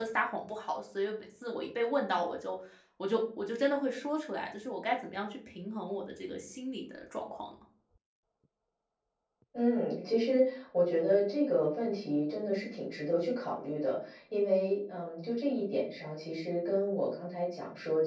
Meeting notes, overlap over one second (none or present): none